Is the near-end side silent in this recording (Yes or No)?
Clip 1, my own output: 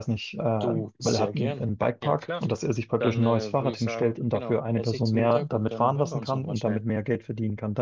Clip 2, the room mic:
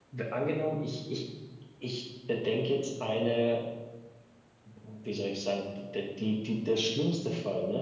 No